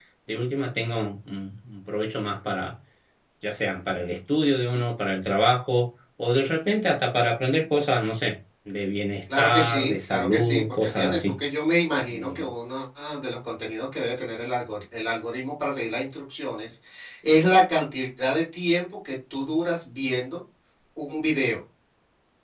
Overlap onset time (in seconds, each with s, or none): 9.4 s